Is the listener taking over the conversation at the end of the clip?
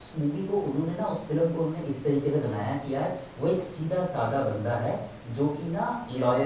No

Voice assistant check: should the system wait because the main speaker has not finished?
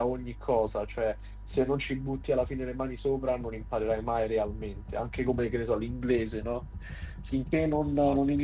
Yes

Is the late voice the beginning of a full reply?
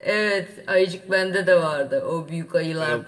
No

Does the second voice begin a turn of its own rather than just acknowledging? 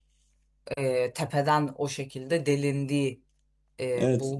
Yes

